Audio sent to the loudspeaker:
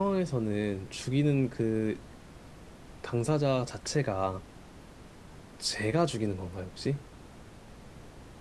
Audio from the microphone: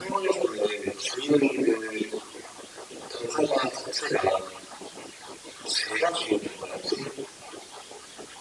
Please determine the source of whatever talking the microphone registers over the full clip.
echo only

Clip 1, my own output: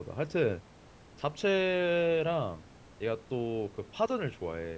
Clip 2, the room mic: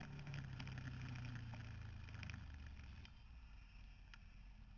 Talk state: neither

